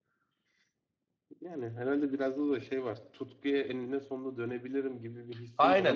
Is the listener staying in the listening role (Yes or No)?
No